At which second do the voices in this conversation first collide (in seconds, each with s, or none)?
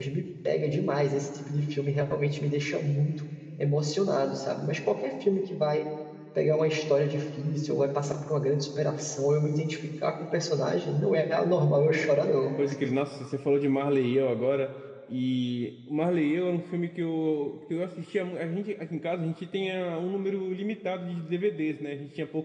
none